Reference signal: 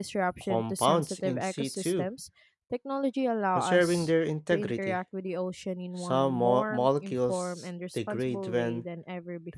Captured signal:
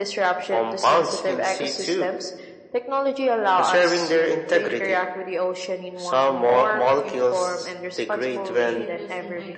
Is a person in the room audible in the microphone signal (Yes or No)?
Yes